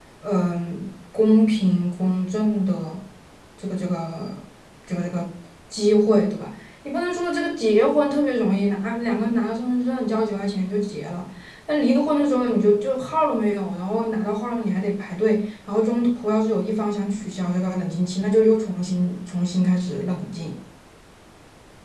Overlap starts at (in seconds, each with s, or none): none